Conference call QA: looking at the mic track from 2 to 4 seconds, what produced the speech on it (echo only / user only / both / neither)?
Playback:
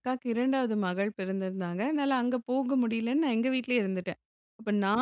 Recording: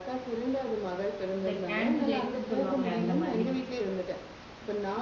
both